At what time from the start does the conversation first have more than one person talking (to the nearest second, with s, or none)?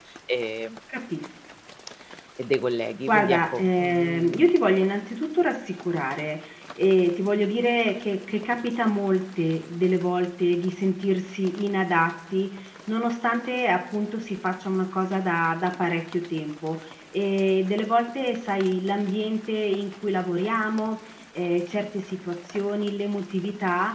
3 s